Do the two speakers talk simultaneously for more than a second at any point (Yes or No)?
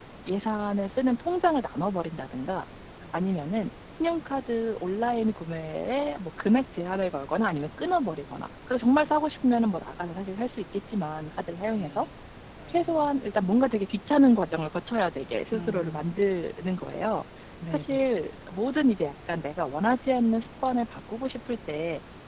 No